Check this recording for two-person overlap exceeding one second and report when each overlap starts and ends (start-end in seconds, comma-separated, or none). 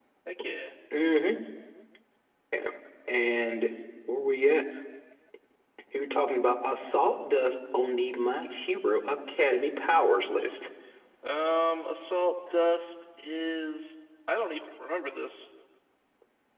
none